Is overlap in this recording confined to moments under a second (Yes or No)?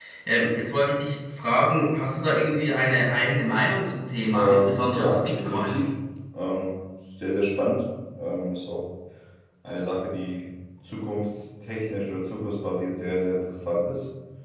No